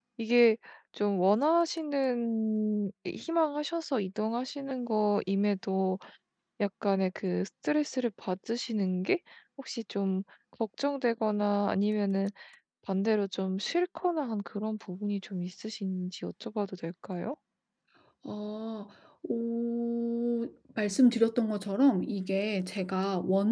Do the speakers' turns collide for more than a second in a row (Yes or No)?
No